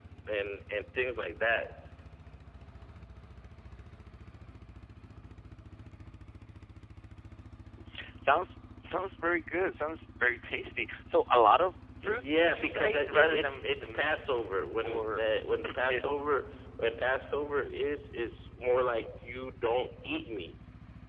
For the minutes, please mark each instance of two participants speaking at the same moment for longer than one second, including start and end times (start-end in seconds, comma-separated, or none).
12.0-14.3